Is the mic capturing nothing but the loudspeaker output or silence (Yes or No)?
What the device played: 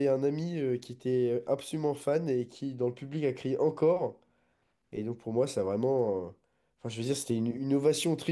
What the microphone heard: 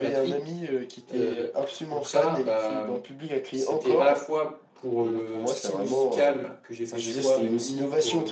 No